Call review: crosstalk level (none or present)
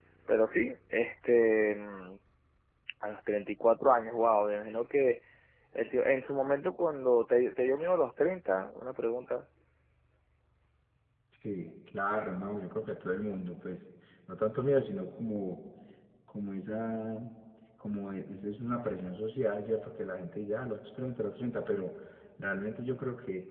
none